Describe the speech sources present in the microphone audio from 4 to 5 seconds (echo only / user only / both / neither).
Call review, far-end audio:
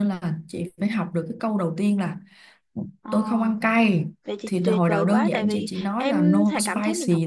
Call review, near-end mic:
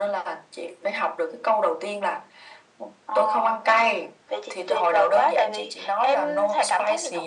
echo only